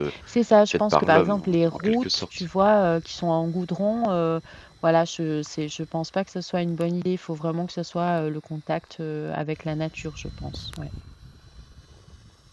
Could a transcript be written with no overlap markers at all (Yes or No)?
No